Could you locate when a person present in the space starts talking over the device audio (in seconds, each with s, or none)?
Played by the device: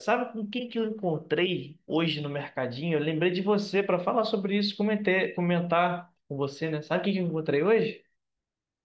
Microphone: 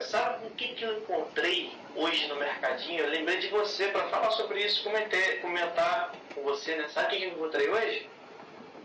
none